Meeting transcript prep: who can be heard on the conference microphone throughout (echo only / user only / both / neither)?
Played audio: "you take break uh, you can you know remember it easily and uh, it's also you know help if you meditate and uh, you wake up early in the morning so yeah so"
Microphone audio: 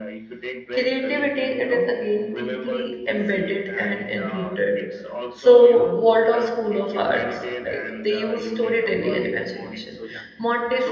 both